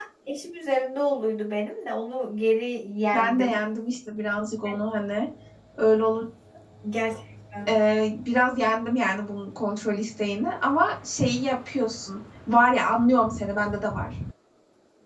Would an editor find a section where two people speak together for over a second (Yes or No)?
No